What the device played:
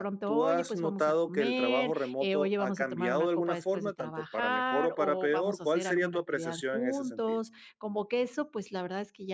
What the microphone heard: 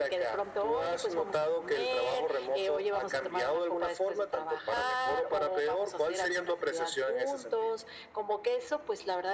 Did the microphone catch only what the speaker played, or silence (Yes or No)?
Yes